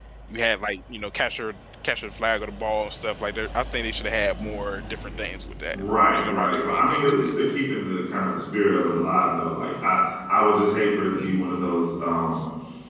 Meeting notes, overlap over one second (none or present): present